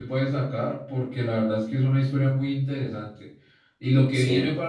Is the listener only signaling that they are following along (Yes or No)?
Yes